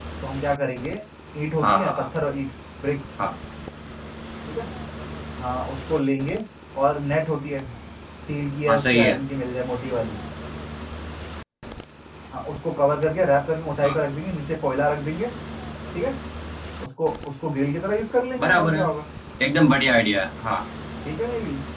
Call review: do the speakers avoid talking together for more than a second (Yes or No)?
Yes